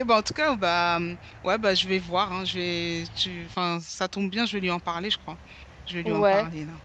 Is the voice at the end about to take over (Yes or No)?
Yes